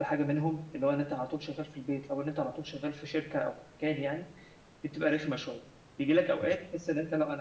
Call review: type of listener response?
listening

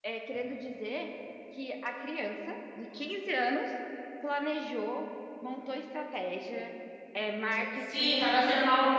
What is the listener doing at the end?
taking over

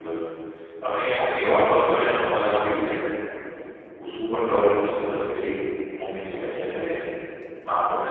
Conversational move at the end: taking over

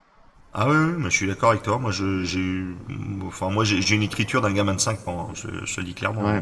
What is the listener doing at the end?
taking over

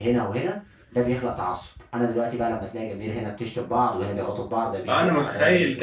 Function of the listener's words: taking over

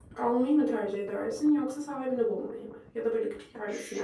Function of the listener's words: taking over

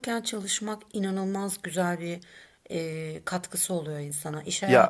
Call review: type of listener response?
listening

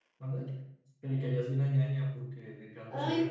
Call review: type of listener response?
taking over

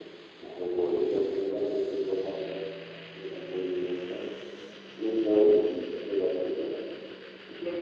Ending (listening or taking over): taking over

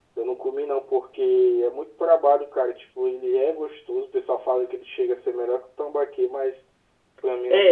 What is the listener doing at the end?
taking over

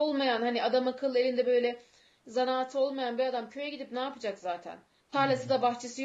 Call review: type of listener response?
listening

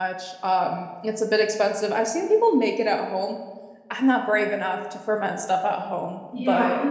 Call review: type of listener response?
taking over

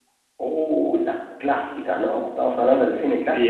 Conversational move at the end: taking over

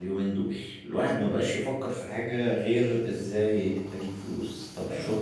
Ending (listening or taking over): listening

